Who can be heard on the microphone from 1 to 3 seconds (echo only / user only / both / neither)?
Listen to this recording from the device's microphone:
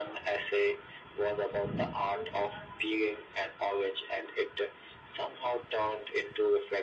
echo only